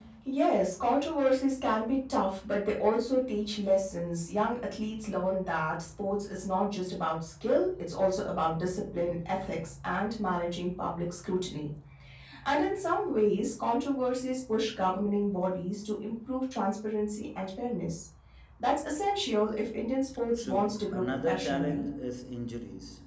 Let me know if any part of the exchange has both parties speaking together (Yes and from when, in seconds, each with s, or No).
Yes, from 20.4 s